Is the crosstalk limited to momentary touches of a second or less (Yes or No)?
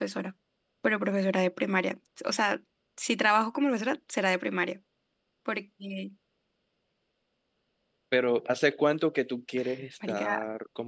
Yes